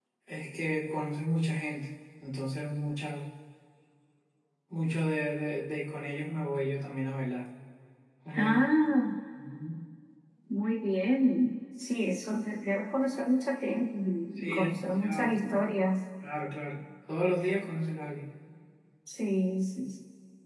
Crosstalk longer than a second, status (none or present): present